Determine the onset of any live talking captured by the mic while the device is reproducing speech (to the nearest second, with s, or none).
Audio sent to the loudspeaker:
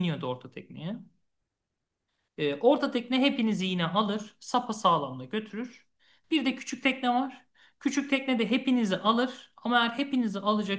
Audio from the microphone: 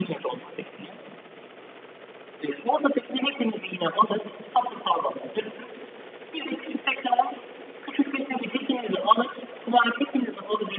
none